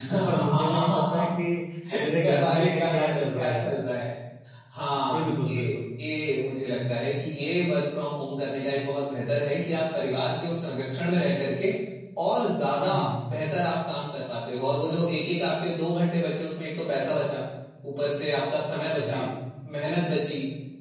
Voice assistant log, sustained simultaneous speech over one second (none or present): present